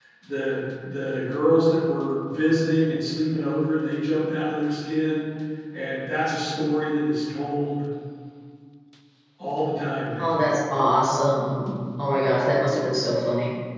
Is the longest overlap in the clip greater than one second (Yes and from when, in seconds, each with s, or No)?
No